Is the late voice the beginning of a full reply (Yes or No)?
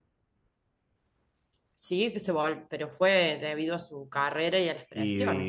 Yes